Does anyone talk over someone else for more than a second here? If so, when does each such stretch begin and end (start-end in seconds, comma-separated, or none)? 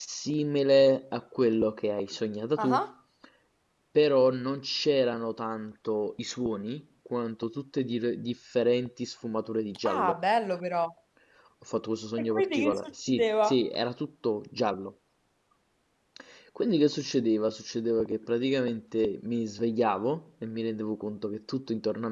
12.2-13.6